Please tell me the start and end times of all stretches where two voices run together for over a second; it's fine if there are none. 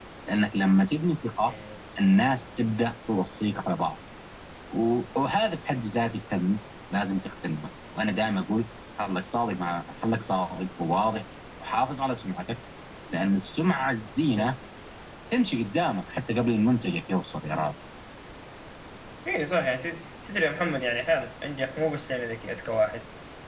none

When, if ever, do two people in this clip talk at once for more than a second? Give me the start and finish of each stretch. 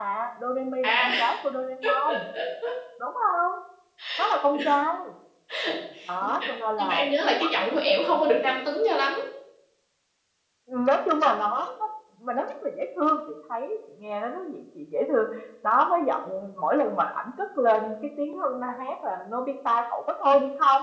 6.2-8.4

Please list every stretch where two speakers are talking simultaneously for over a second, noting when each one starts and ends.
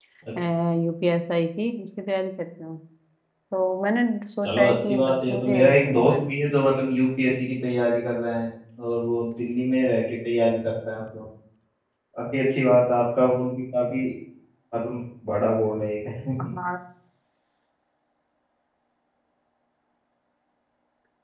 4.4-6.3

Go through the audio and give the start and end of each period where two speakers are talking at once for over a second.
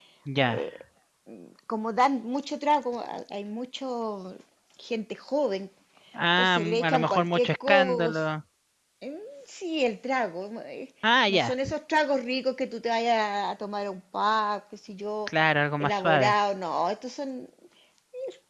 6.4-8.3

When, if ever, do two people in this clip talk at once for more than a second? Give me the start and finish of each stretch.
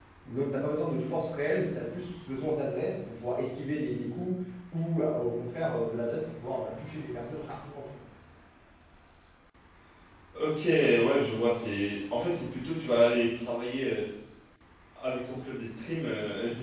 none

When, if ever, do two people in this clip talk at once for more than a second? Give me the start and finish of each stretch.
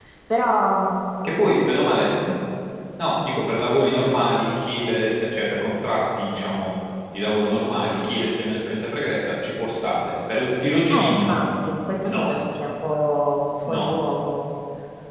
none

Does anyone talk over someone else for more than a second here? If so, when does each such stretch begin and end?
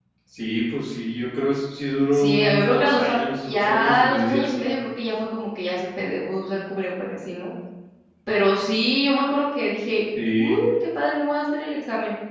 2.1-4.8

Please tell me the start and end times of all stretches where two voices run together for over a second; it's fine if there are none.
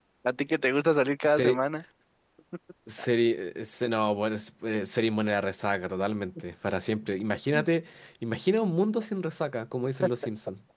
none

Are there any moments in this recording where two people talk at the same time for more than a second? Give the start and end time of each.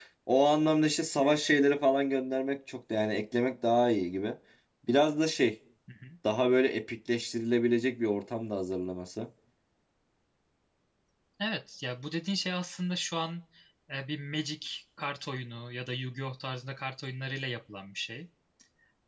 none

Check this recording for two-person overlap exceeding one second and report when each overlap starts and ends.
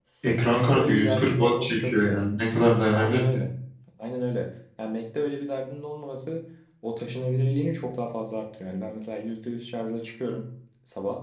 0.5-2.2

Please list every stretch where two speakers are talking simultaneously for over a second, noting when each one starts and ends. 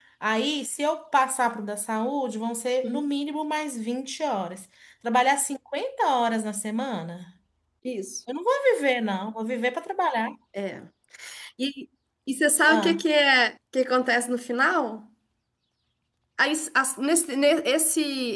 none

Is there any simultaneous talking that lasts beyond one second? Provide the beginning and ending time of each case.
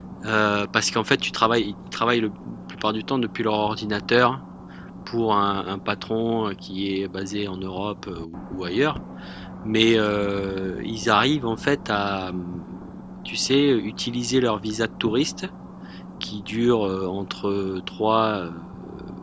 none

